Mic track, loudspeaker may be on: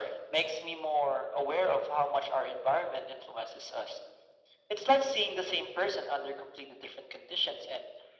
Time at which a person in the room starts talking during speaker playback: none

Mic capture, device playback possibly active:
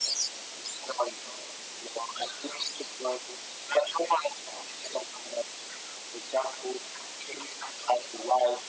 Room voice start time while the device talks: none

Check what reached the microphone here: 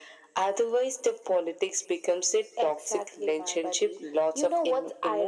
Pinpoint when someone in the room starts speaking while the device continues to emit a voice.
none

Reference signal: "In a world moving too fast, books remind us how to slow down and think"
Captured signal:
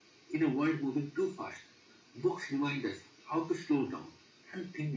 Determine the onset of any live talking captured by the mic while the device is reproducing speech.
none

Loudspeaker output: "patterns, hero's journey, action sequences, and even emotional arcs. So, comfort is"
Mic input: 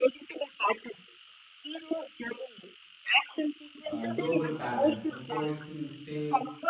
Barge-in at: 3.9 s

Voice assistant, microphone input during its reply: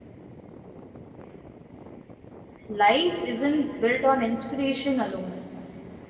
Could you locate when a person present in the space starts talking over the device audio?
2.7 s

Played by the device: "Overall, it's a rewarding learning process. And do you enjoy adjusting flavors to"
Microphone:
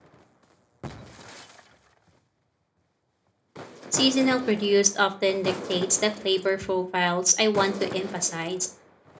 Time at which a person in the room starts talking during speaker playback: 3.9 s

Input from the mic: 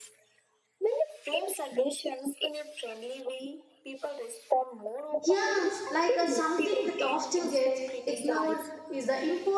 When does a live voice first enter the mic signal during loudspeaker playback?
5.2 s

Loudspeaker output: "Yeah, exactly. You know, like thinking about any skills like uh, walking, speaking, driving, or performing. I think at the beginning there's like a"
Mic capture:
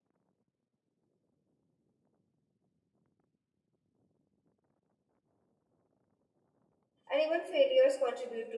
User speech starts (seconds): 7.1 s

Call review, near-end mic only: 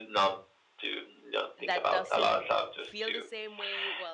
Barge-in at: 1.7 s

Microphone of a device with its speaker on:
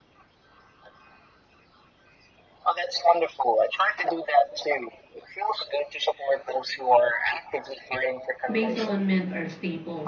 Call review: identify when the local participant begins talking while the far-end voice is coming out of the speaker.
8.5 s

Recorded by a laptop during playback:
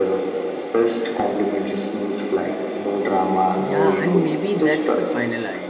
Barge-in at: 3.6 s

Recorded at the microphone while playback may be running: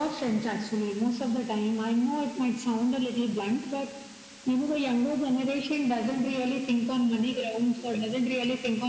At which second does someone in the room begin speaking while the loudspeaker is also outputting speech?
none

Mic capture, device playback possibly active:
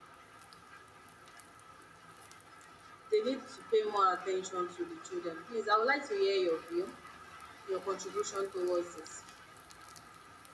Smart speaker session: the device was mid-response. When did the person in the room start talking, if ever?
none

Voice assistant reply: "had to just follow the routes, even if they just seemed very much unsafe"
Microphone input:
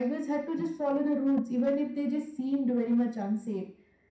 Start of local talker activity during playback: none

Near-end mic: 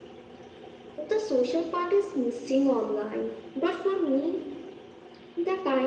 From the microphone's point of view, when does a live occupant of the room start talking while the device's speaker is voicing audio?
none

